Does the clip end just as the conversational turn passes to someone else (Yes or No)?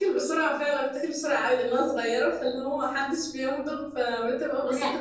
Yes